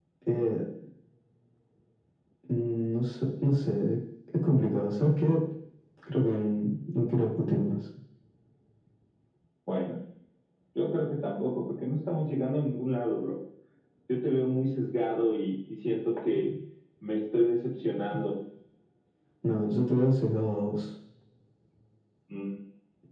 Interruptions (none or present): none